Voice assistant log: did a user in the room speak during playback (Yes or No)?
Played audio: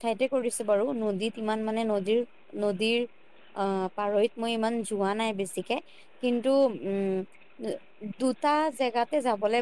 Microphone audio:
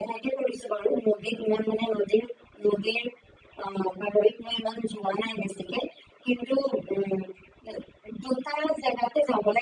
No